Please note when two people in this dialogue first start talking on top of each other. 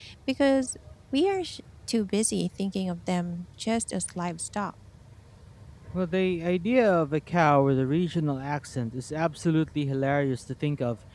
none

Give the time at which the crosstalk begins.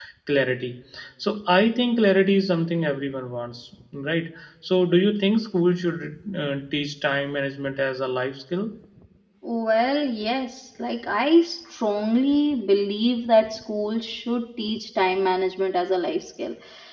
none

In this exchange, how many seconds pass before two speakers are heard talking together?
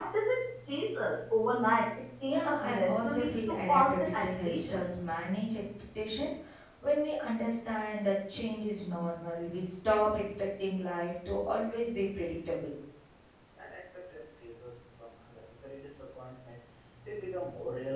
2 s

